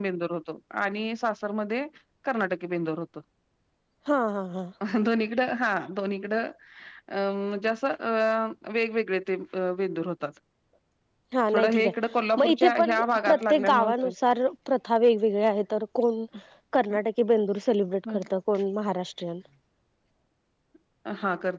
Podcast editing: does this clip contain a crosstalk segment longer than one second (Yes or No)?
Yes